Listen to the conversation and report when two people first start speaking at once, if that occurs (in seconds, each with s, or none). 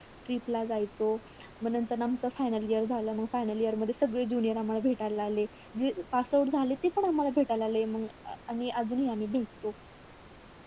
none